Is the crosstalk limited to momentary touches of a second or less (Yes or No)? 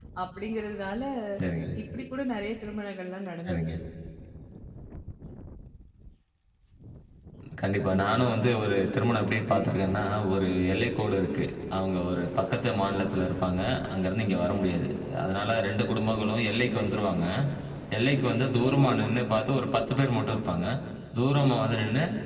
Yes